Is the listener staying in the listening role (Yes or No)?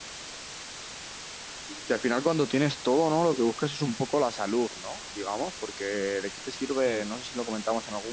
Yes